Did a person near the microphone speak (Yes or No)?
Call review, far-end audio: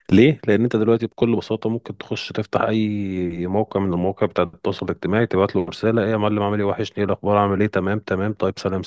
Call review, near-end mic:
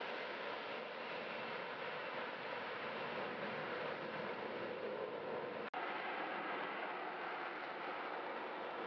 No